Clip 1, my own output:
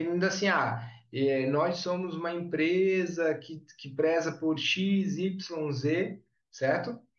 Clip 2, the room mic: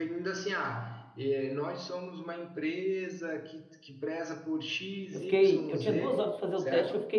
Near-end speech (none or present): present